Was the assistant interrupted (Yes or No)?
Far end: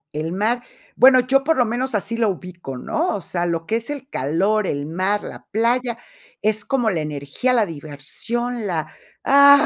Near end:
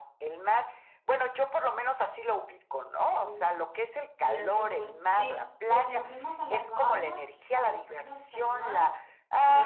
Yes